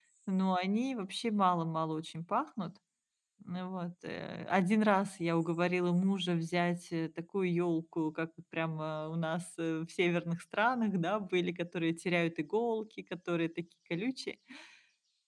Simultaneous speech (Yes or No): No